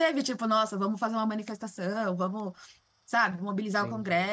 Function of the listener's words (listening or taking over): listening